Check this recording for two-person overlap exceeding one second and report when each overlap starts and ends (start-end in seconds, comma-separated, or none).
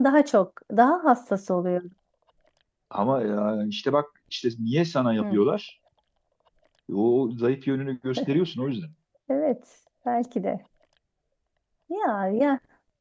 none